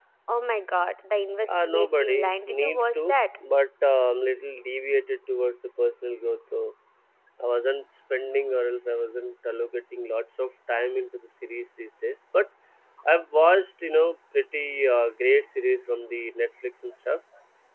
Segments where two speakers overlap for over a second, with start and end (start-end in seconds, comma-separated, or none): 1.5-3.1